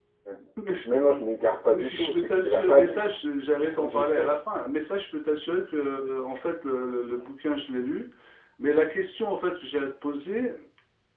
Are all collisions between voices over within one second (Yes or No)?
No